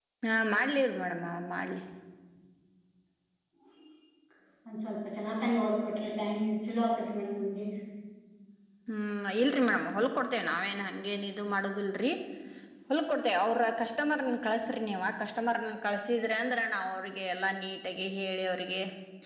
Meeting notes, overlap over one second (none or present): none